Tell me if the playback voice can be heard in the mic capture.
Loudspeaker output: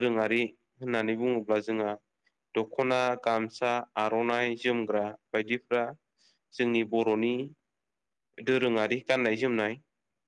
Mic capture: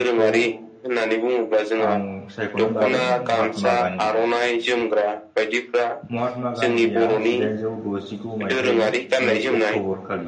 Yes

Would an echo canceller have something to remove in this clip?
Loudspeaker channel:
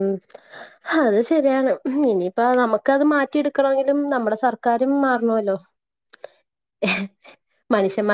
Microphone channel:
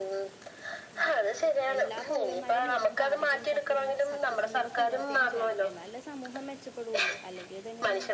Yes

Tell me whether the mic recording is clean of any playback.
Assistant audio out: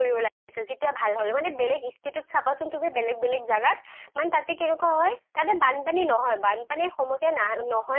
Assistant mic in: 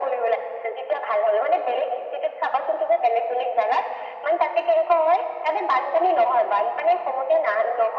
No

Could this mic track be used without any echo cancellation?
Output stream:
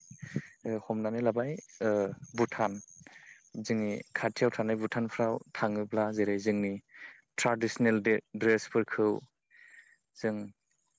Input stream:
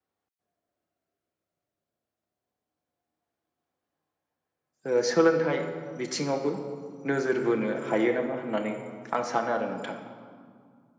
Yes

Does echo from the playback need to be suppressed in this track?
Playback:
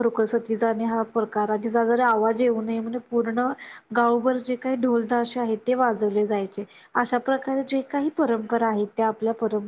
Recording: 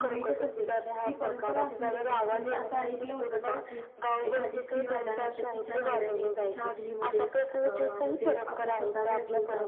Yes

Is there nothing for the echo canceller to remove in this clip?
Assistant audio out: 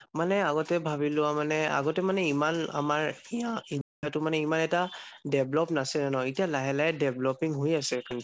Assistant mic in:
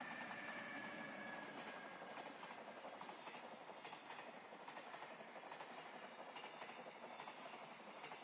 Yes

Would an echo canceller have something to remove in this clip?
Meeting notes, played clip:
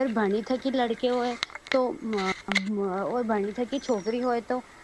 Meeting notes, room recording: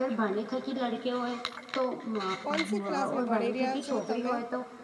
Yes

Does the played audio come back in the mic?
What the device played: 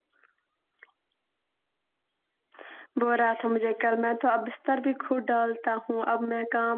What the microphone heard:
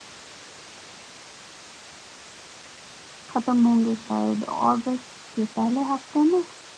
No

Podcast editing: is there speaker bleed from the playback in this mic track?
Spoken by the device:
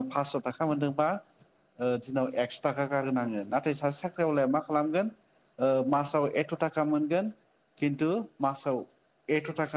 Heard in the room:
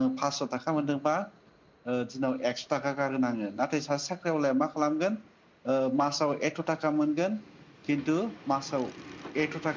Yes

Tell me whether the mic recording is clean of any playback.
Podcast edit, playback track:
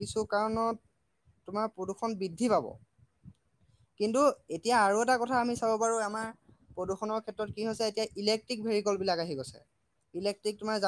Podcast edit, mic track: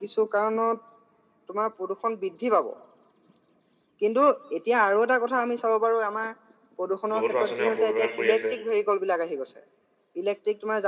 No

